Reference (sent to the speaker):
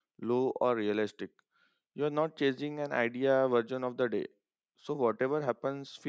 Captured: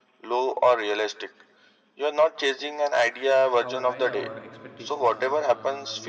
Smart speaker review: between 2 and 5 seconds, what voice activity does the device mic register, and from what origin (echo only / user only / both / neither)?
both